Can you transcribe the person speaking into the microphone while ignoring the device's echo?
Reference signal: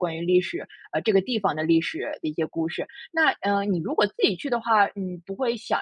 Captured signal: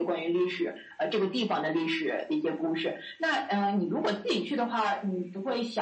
none

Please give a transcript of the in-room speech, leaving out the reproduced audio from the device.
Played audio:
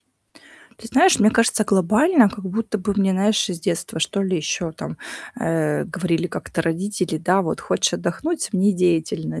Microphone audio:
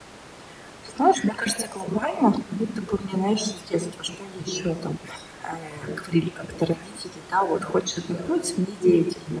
none

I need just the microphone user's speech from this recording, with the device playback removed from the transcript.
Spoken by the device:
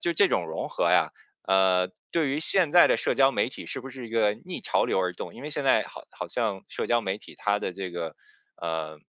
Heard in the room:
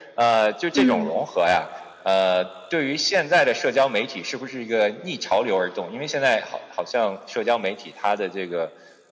嗯。

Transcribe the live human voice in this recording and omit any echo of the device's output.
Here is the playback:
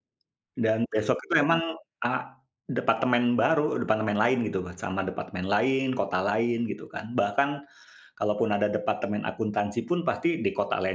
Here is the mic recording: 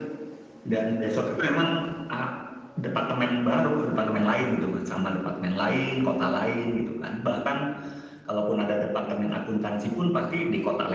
none

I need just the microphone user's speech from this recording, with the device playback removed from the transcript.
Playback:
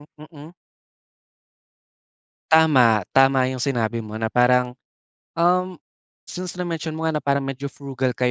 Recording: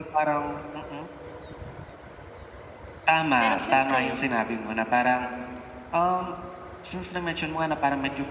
Pero siyempre

